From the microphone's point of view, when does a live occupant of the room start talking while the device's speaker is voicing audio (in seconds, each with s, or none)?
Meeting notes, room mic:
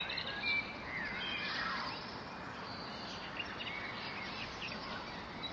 none